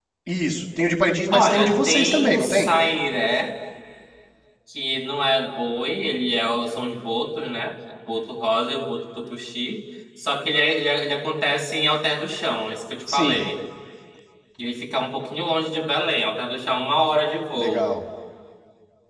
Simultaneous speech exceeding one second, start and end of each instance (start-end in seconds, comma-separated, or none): 1.3-2.7